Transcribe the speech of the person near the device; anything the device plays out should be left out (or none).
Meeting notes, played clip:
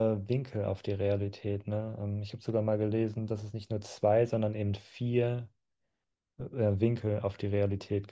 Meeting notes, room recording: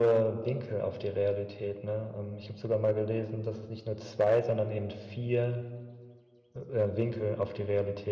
none